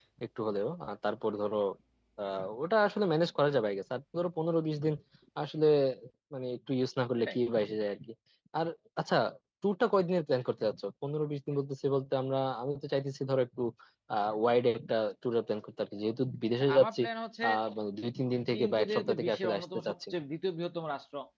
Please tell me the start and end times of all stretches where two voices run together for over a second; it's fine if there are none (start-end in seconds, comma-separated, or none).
18.5-20.2